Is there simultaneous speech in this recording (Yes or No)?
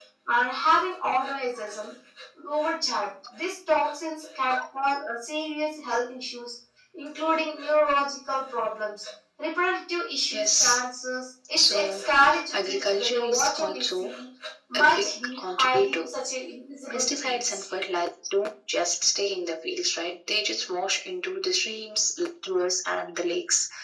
Yes